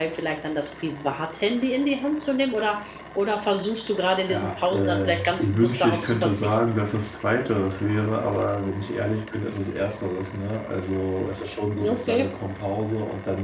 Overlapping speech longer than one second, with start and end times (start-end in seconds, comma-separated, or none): 4.3-6.6